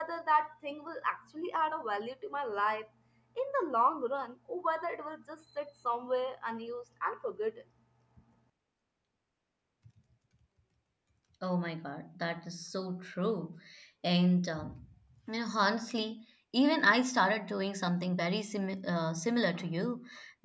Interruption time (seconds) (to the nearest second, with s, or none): none